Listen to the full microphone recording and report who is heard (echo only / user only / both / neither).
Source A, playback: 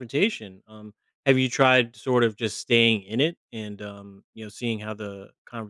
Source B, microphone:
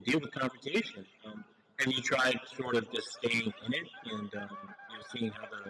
echo only